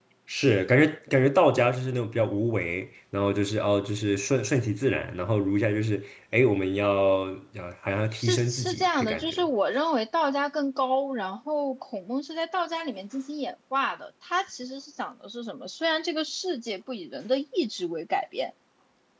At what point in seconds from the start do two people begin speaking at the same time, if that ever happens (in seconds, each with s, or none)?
8.2 s